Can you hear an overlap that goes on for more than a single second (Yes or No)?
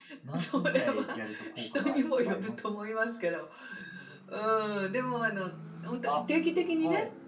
Yes